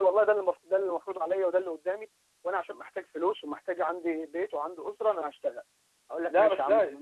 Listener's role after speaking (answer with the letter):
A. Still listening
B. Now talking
B